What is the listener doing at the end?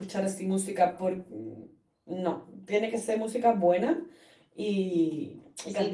taking over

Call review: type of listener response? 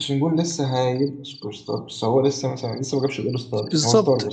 taking over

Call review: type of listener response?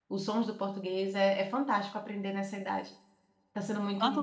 taking over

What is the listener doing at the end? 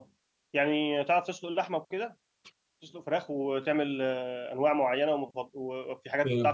taking over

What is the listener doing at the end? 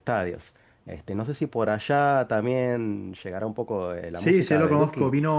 taking over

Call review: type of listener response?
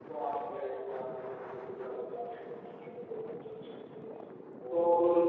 taking over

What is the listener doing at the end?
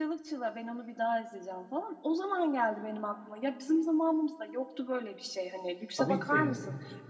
listening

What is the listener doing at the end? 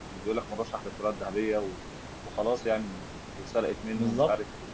listening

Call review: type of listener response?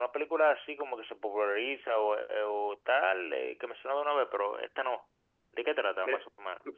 taking over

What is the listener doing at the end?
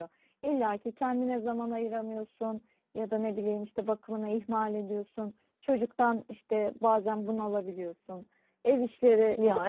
listening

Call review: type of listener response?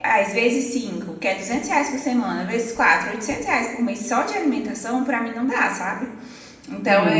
listening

